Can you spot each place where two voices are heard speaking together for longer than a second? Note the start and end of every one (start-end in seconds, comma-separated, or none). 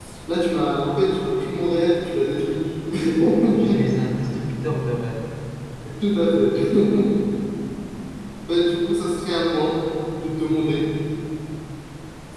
none